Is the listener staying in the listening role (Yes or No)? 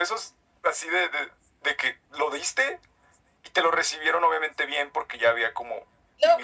No